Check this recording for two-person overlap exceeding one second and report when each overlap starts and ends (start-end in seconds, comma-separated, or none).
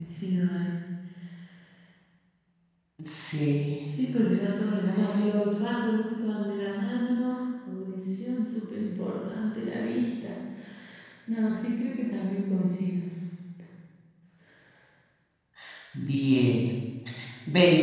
none